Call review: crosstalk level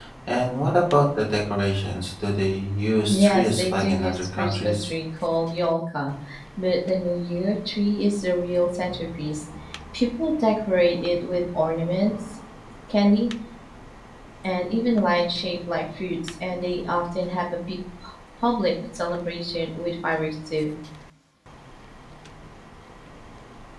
present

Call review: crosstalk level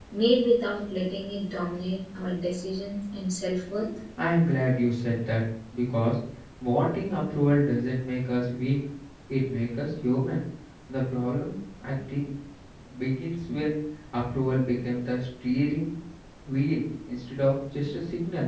none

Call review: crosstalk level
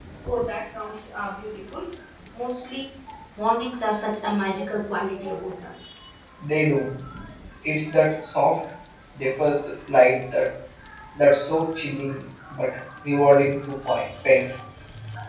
none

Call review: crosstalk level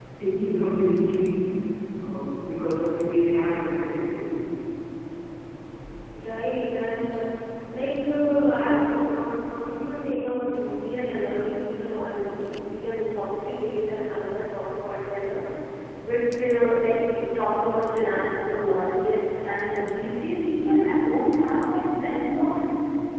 none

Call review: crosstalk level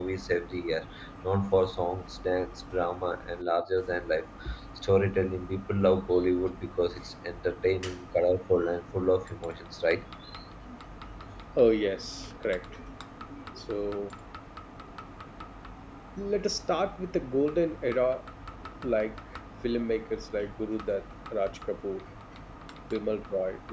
none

